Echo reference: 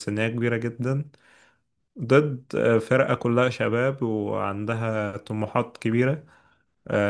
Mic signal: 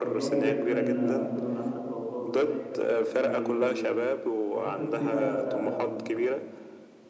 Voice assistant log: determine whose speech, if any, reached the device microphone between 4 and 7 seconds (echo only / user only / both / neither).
both